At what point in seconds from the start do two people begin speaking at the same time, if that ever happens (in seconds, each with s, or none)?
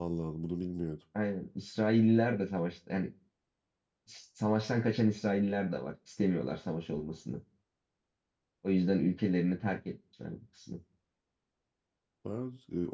none